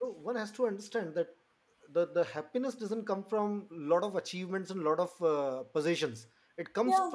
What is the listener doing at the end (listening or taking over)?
listening